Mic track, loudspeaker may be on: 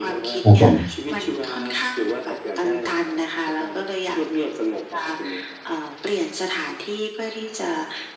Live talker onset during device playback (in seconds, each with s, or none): 0.4 s